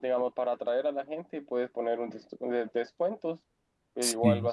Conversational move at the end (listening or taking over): listening